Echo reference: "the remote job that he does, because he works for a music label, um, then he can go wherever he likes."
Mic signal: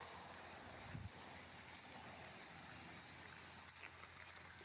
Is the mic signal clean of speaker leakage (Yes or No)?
Yes